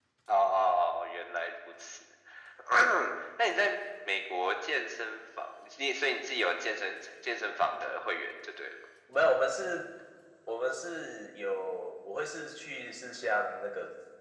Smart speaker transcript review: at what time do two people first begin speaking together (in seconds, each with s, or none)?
none